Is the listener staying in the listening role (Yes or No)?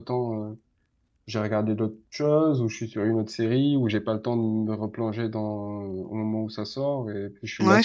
No